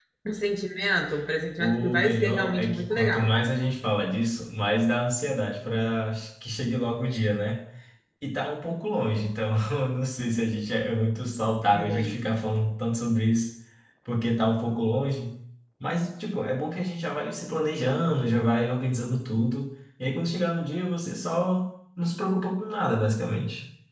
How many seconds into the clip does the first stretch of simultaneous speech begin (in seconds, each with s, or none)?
1.6 s